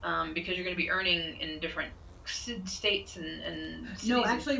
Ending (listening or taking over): taking over